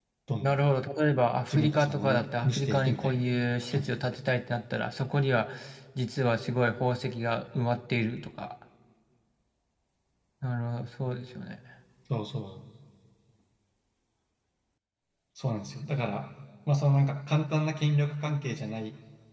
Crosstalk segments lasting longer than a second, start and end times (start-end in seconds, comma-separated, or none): 1.5-3.2